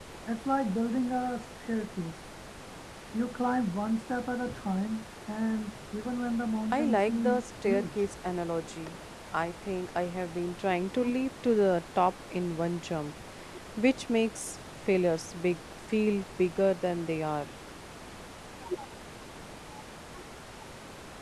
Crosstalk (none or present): present